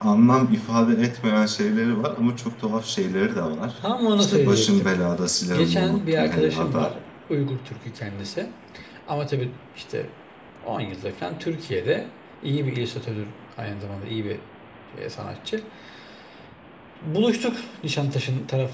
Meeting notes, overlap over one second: present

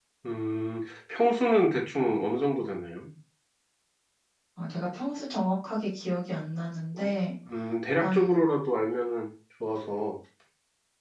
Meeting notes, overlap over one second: none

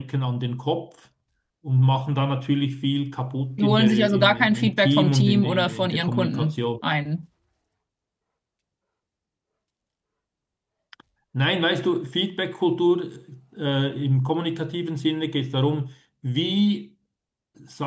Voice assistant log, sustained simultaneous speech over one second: present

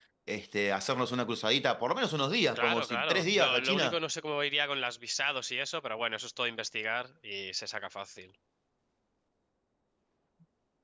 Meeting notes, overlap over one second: present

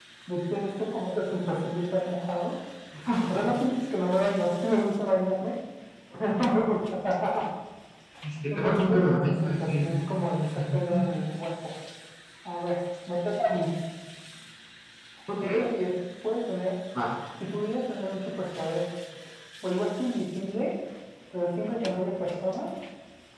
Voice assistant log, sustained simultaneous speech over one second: present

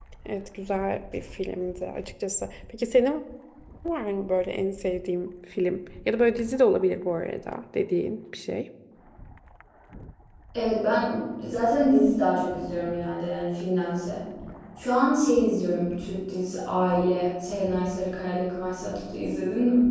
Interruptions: none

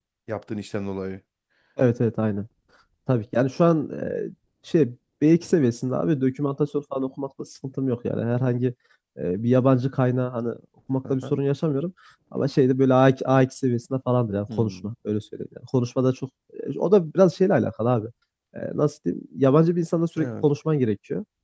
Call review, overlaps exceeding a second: none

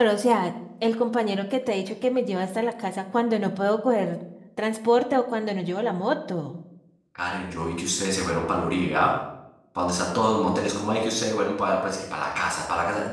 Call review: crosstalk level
none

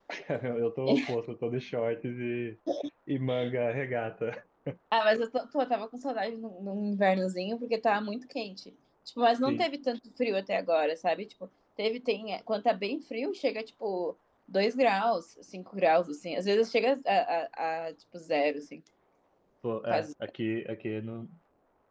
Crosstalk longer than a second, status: none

